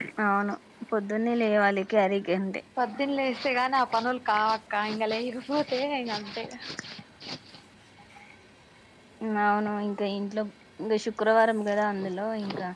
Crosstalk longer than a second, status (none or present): none